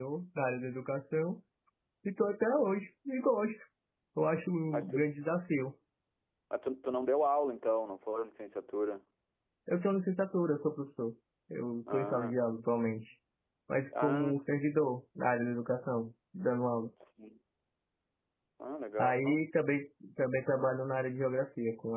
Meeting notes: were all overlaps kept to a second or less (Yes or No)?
Yes